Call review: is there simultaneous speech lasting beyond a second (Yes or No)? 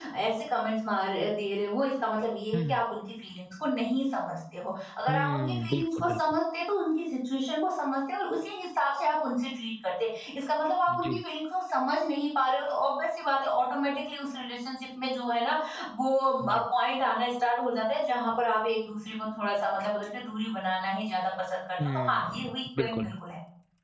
Yes